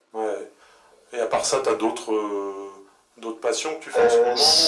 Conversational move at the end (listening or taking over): taking over